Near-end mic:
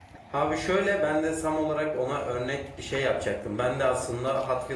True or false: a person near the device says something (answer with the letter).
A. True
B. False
A